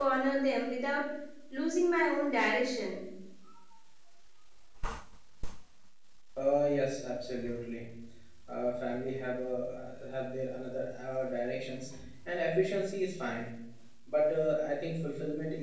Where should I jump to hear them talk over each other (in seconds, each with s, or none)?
none